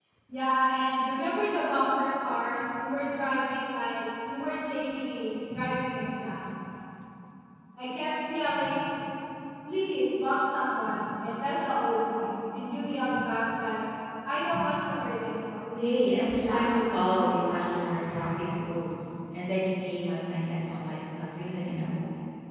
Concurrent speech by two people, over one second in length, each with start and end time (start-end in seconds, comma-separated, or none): 15.8-17.3